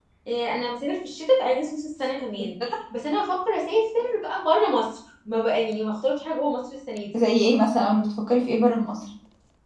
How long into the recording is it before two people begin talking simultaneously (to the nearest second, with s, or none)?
none